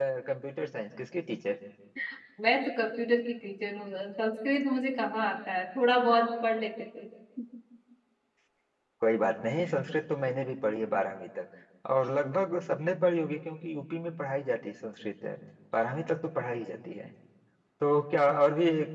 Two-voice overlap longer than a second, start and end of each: none

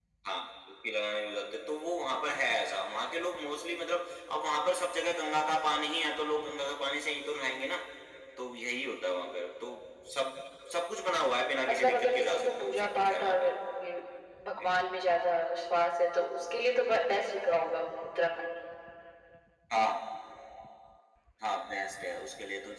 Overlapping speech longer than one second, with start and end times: 11.7-13.5

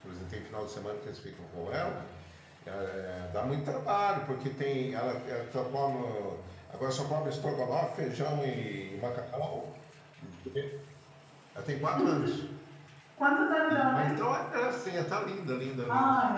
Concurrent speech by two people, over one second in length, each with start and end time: none

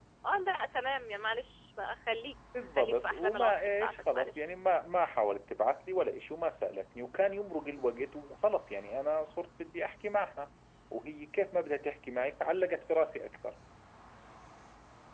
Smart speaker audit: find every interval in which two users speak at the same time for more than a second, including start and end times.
2.8-4.4

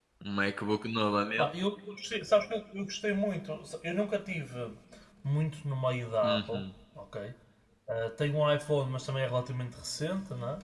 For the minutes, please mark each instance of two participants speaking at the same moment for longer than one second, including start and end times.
none

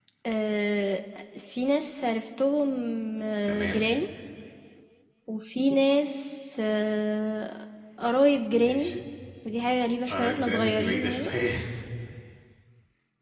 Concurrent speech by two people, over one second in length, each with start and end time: 10.1-11.3

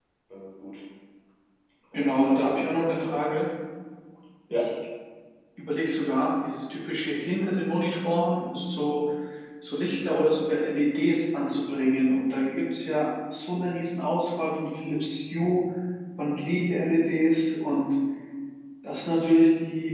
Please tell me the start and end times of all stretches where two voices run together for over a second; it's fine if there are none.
1.9-3.4

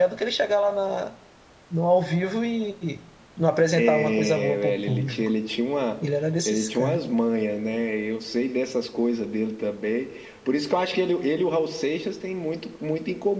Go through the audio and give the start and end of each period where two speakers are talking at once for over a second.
3.7-5.3

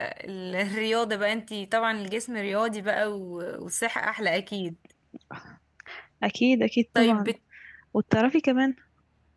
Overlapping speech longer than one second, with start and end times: none

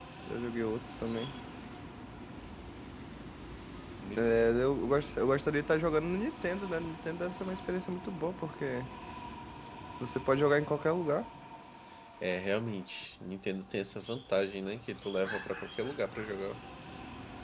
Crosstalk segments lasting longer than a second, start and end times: none

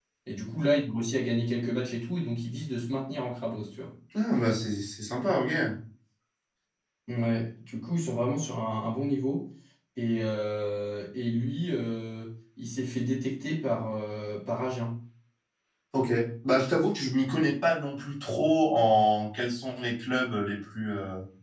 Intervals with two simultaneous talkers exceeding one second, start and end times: none

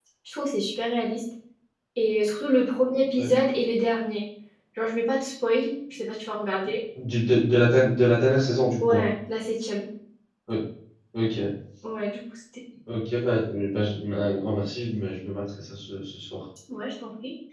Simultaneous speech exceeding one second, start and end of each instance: none

